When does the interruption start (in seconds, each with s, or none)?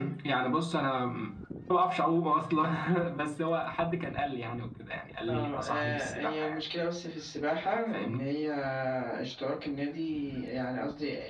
5.3 s